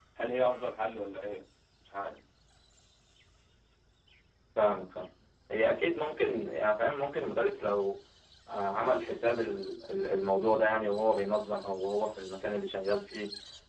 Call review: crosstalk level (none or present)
none